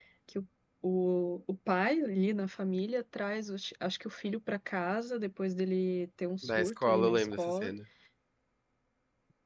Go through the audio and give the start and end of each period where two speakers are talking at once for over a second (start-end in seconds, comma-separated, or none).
6.4-7.7